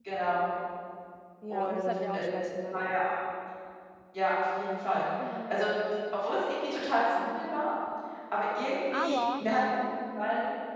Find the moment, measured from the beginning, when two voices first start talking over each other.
1.5 s

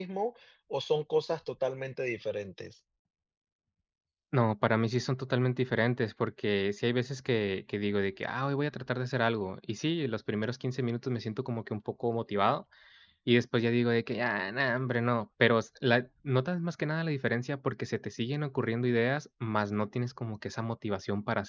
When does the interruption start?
none

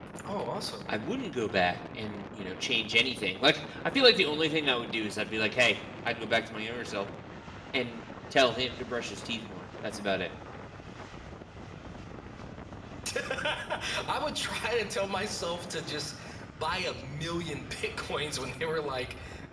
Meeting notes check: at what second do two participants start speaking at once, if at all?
none

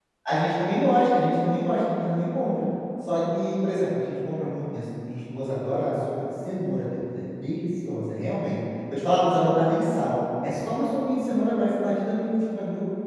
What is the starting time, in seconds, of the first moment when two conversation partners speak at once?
none

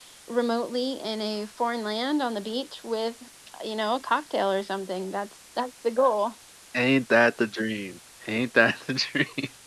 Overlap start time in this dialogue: none

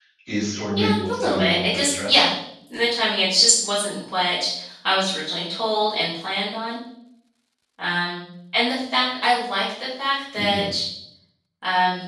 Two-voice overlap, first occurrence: 0.8 s

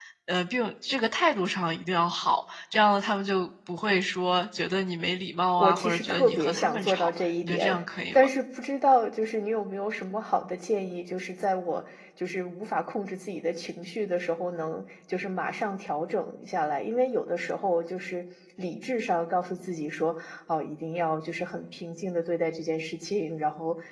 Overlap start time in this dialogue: 5.6 s

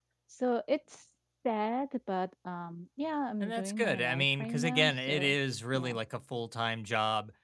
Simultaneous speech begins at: 3.4 s

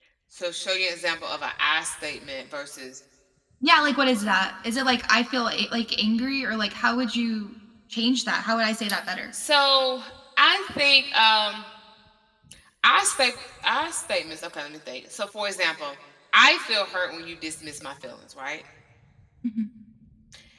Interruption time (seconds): none

